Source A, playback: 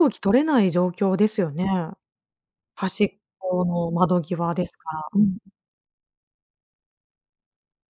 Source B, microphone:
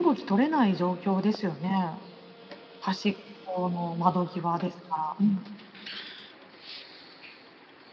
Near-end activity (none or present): none